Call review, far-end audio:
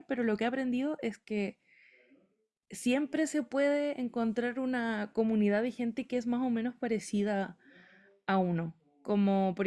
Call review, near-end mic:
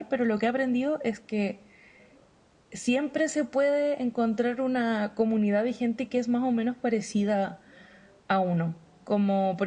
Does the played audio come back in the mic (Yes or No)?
Yes